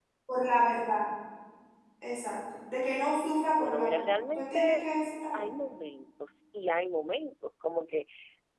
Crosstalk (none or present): present